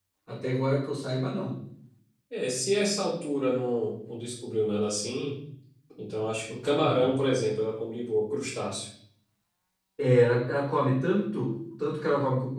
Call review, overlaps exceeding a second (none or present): none